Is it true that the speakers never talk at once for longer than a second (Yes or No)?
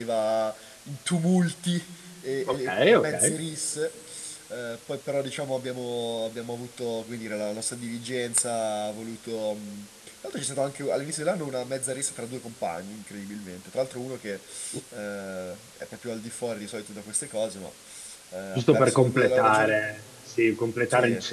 No